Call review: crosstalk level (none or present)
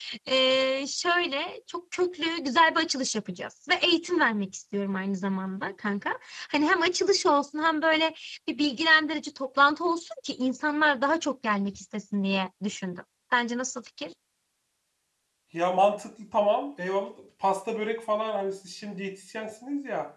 none